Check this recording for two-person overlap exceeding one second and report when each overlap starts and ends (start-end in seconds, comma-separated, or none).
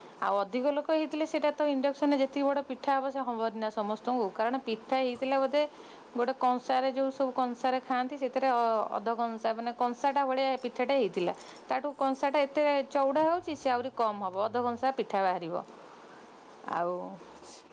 none